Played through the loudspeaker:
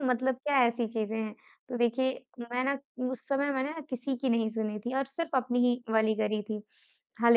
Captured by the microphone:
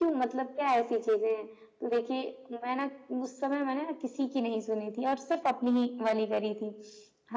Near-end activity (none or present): none